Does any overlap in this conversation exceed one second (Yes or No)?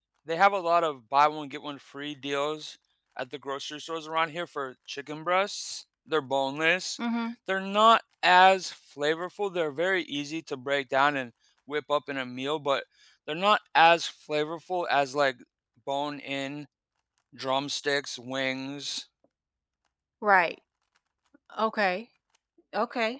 No